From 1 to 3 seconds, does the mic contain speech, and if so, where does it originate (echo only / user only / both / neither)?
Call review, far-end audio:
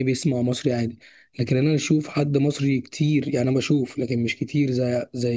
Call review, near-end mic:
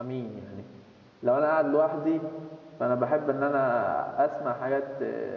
user only